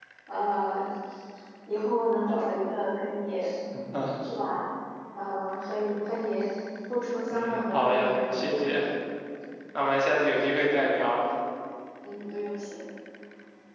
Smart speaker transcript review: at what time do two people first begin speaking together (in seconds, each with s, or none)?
7.3 s